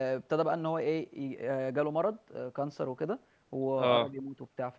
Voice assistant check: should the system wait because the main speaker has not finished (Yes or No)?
Yes